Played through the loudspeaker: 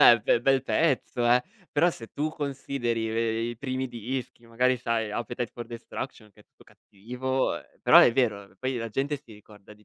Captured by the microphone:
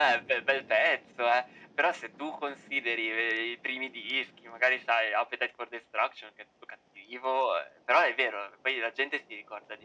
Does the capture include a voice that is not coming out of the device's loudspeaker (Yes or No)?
No